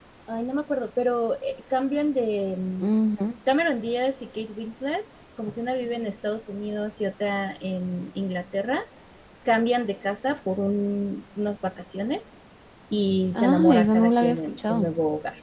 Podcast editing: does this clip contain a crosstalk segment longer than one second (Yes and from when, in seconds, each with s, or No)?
Yes, from 13.3 s